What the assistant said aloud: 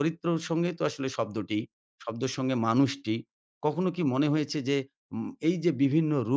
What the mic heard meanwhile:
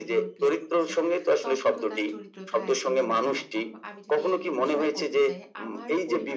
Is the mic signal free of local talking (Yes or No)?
No